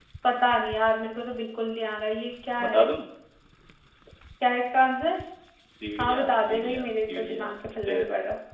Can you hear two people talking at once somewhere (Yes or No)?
Yes